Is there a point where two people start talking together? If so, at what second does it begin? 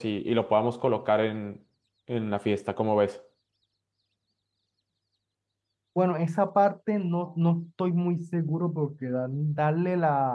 none

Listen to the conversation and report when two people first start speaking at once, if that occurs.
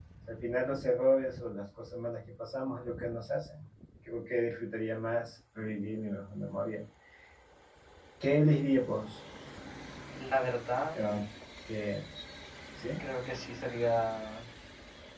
none

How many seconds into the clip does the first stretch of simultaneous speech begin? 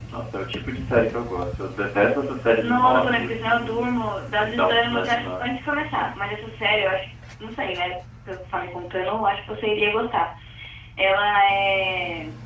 2.6 s

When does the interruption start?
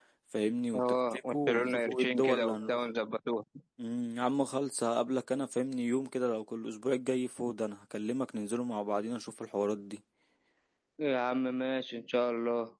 0.8 s

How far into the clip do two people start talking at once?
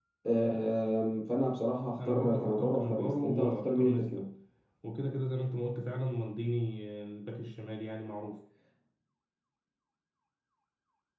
2.0 s

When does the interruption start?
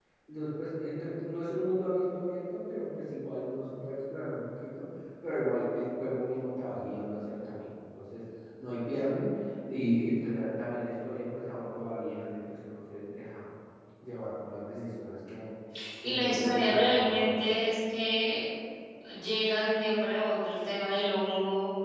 16.0 s

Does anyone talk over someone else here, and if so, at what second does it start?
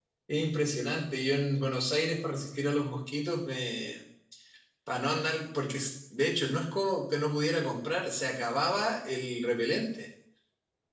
none

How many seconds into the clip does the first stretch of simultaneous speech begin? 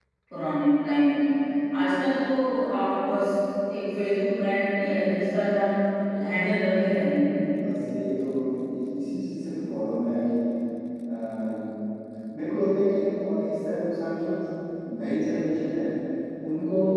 none

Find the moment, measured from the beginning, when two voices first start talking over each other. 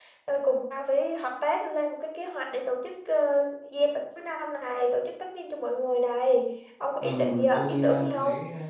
7.0 s

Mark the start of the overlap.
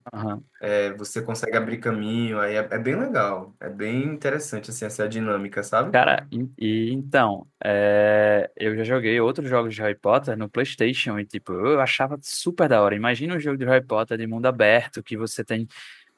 none

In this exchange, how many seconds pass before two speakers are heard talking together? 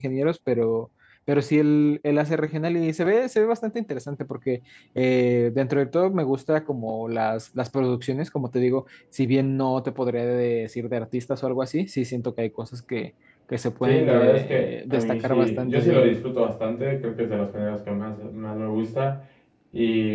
13.8 s

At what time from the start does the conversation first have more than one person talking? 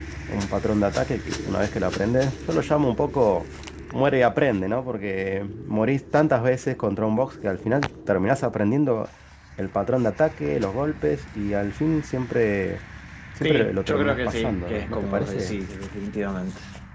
13.4 s

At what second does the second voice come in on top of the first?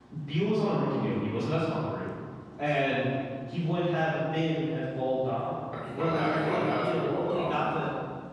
5.7 s

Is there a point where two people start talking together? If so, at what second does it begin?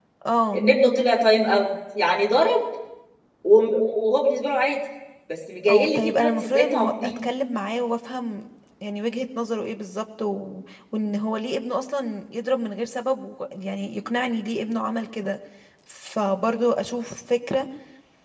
5.7 s

